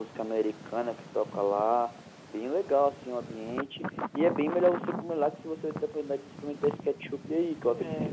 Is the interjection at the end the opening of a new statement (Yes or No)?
Yes